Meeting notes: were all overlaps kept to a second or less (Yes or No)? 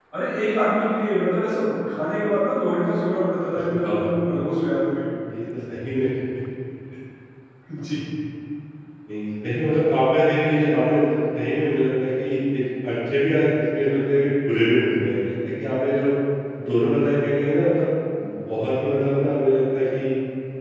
Yes